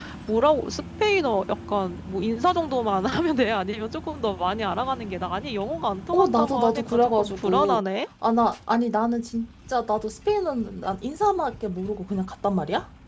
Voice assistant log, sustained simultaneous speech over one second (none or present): present